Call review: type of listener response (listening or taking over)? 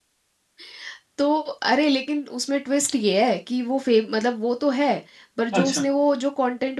listening